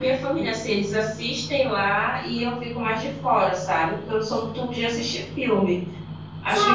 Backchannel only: No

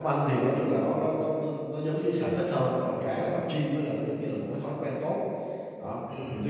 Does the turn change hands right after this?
No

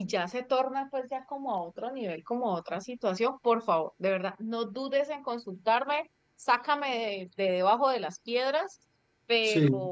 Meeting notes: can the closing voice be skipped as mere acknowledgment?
Yes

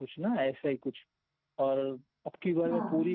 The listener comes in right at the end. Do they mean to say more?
No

